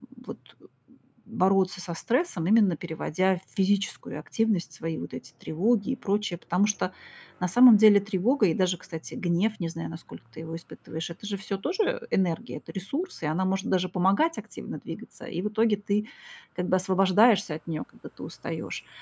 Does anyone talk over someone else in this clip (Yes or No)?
No